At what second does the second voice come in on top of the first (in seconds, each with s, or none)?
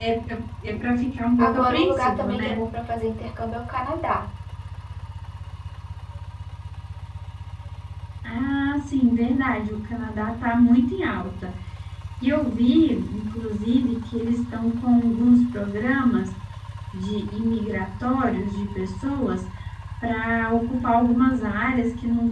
1.4 s